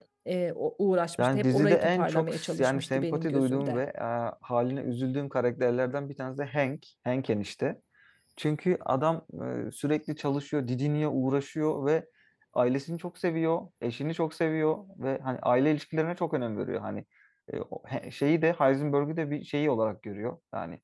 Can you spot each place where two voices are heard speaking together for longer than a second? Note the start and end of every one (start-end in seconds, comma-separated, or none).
1.2-3.8